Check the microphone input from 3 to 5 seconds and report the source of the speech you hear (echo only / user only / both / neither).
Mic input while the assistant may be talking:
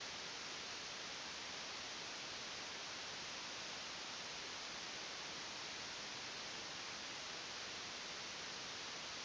neither